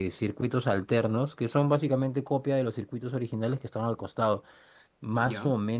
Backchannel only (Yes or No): Yes